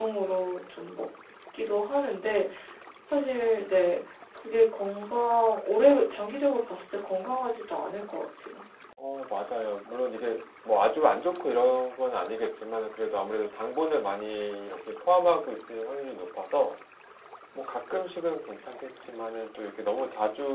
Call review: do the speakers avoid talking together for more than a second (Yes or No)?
Yes